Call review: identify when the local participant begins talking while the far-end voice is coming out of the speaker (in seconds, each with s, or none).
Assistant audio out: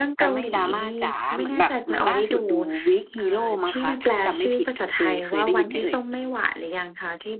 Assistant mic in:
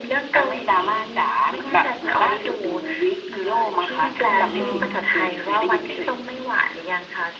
4.2 s